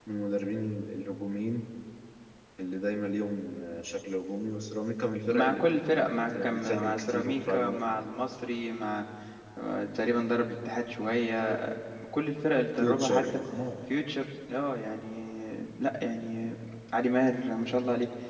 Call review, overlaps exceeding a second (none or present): present